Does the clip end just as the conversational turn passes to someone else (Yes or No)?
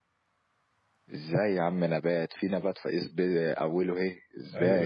Yes